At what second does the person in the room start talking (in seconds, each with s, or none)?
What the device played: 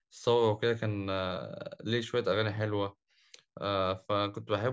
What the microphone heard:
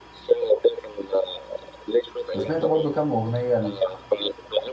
2.3 s